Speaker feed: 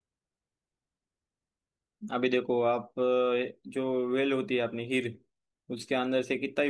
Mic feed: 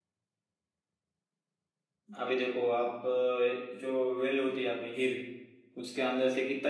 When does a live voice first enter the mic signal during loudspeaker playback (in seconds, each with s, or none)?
none